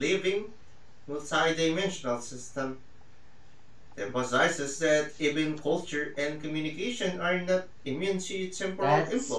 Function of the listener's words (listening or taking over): taking over